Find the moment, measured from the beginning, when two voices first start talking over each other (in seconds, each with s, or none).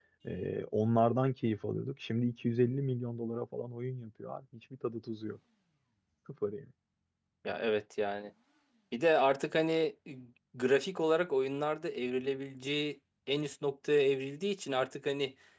none